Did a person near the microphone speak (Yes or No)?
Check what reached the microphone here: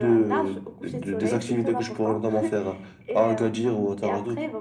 No